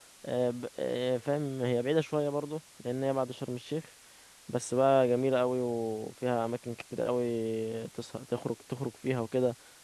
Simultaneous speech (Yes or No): No